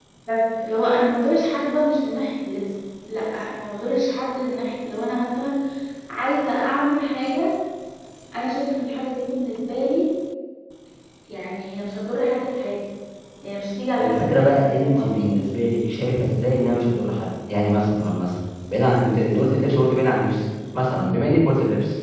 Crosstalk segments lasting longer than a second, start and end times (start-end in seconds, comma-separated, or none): 14.0-15.3